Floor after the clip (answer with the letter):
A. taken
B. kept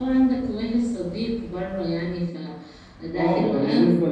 A